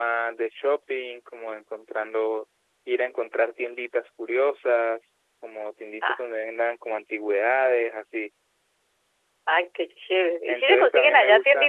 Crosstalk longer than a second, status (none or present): present